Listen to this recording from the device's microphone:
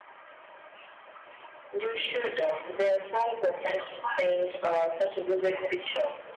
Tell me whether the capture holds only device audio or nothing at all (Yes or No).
Yes